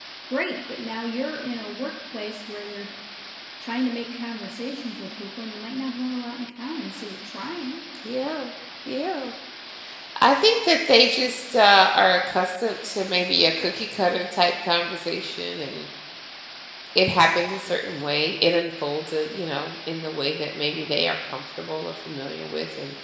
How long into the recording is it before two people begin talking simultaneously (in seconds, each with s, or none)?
none